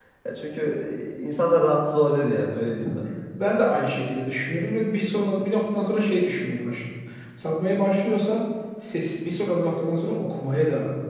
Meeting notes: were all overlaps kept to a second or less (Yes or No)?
Yes